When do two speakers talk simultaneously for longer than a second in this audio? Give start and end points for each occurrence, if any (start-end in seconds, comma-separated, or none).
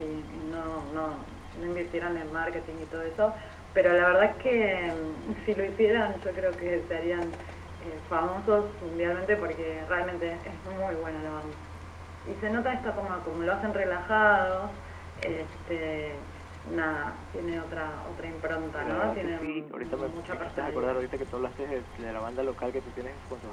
18.8-21.0